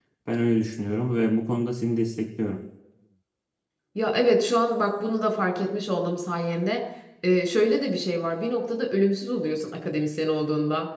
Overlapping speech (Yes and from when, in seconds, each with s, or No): No